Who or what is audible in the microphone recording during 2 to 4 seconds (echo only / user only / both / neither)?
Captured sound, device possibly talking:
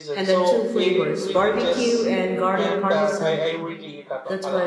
both